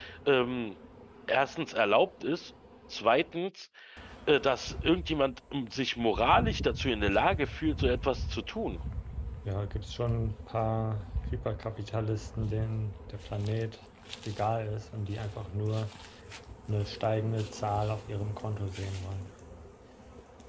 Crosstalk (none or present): none